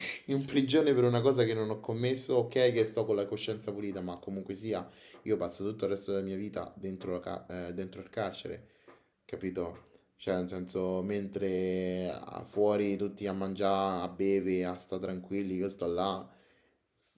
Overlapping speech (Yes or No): No